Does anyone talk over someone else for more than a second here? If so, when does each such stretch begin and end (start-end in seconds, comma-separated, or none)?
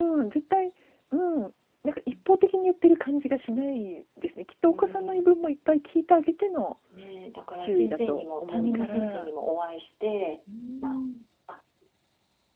7.6-9.3